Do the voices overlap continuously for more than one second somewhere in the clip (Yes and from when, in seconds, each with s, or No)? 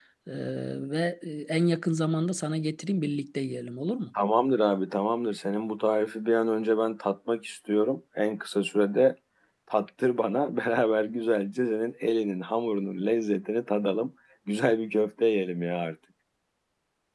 No